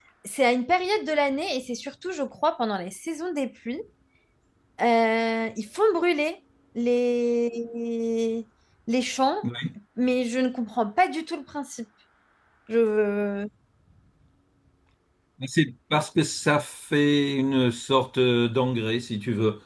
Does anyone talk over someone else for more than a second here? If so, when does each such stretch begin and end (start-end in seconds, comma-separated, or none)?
none